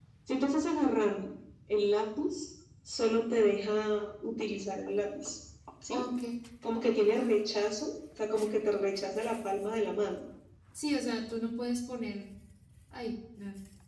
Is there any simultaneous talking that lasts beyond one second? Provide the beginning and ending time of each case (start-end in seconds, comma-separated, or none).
none